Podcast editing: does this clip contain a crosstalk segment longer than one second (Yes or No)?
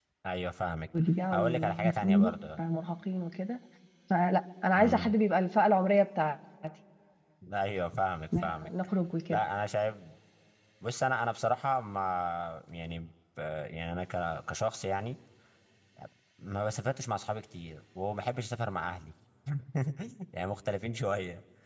Yes